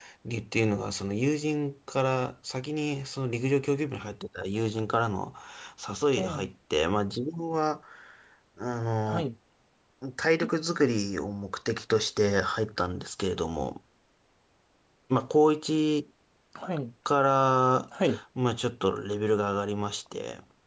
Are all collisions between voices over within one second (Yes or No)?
Yes